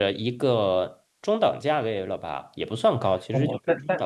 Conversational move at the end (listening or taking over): taking over